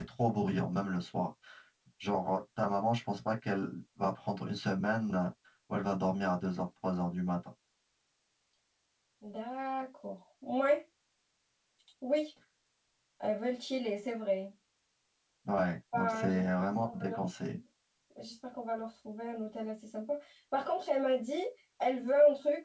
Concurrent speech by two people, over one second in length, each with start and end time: 15.9-17.6

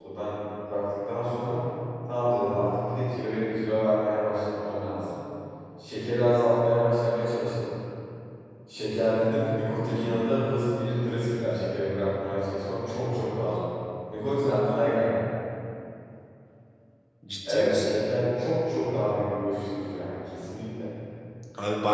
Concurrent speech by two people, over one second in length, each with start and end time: none

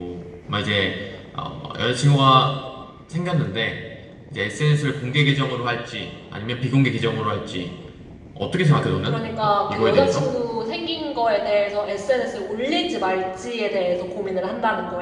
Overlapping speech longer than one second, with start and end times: 9.1-10.3

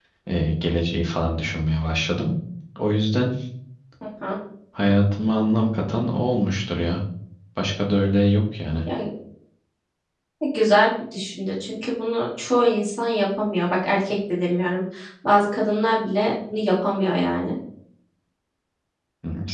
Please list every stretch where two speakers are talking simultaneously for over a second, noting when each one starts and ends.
none

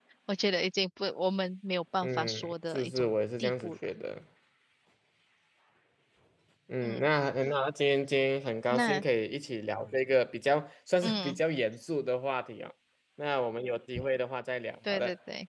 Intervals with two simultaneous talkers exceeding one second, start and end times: 2.0-3.7

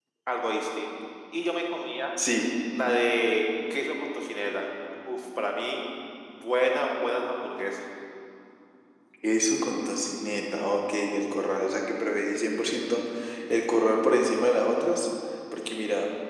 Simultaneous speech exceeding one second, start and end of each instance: none

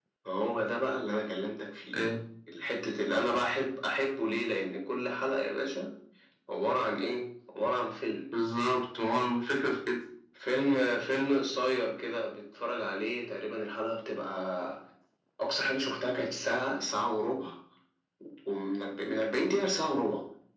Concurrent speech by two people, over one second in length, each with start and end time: none

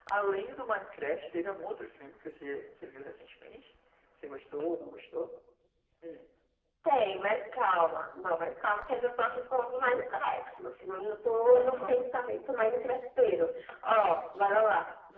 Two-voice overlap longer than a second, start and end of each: none

